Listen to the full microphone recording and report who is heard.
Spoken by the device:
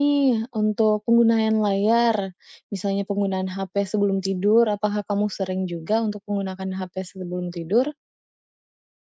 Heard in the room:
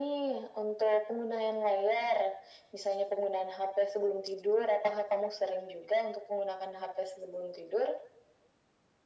echo only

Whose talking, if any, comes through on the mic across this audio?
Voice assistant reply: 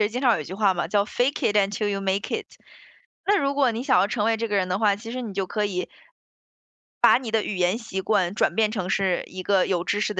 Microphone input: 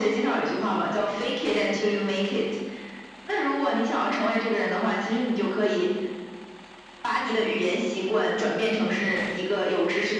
echo only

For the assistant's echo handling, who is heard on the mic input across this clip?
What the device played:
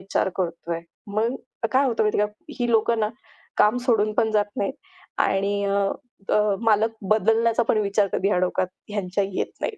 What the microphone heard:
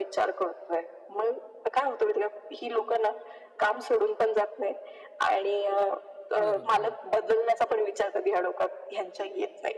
both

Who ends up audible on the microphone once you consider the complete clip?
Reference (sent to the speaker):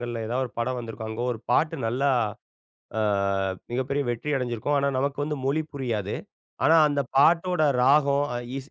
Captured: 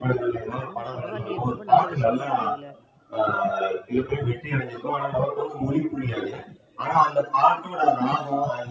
both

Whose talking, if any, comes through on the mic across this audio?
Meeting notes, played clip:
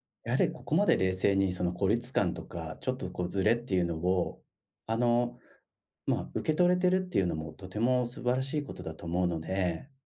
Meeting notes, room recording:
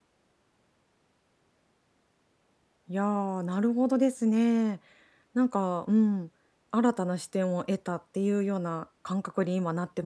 user only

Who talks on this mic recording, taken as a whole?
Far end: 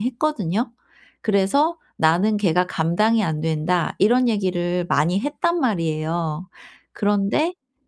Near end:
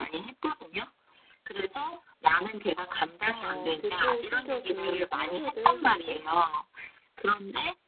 both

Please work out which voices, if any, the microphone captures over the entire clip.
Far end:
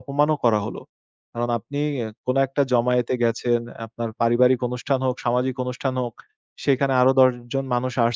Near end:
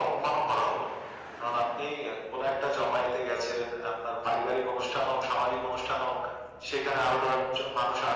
echo only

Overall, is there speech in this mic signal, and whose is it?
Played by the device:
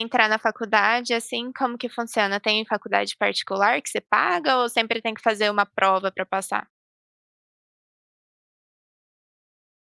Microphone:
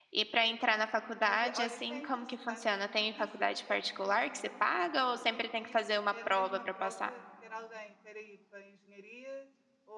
both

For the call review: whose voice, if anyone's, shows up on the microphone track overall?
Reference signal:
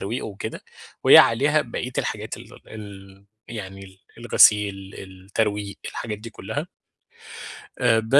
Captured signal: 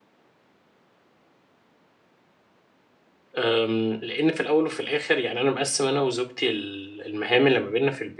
user only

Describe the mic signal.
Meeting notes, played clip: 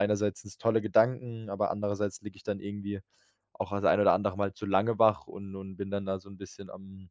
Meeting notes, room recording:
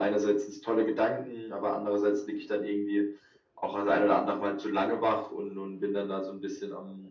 echo only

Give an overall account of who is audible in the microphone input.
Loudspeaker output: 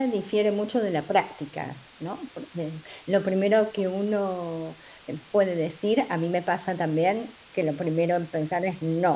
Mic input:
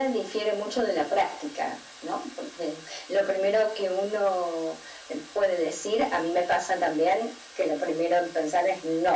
echo only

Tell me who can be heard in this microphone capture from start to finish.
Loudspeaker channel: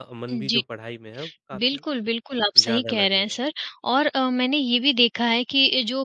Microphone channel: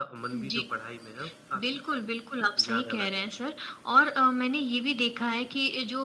echo only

